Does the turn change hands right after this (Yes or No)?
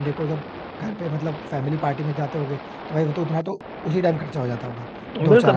Yes